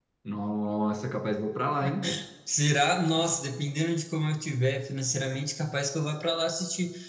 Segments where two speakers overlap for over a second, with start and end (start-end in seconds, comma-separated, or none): none